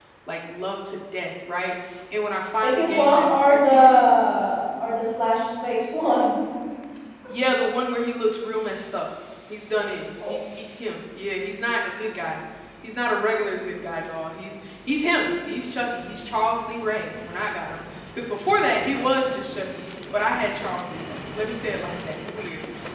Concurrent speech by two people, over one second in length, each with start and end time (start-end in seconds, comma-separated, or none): 2.6-3.9